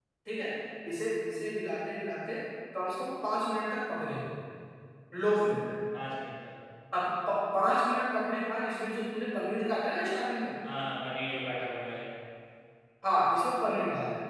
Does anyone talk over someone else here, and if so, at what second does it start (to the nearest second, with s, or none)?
none